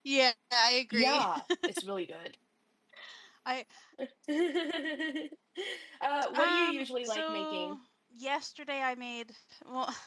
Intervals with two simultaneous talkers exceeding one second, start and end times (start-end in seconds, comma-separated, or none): 6.3-7.8